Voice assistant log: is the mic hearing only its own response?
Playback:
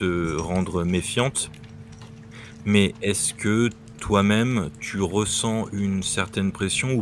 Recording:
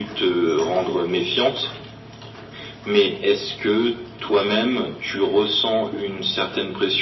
Yes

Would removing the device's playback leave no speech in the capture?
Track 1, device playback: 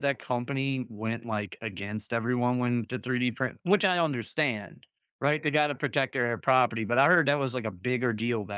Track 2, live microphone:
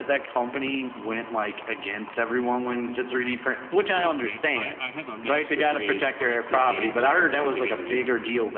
No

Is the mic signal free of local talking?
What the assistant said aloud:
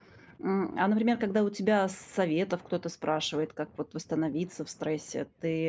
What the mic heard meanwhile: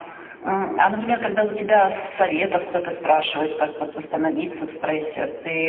Yes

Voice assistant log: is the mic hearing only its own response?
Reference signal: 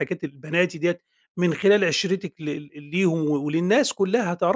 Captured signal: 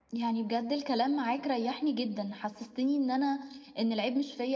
No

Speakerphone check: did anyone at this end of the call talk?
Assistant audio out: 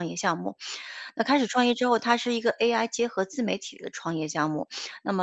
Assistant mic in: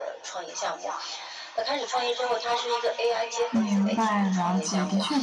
Yes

